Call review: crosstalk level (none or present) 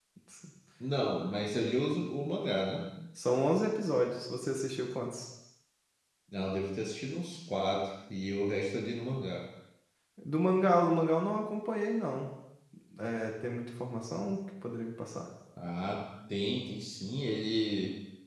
none